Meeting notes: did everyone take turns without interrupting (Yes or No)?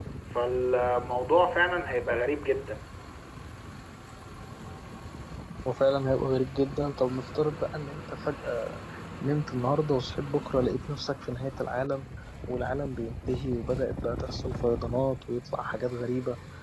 Yes